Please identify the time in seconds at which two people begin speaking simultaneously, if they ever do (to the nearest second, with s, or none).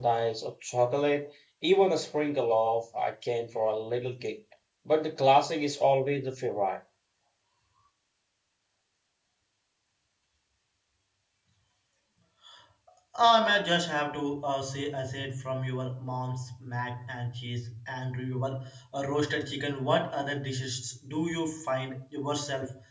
none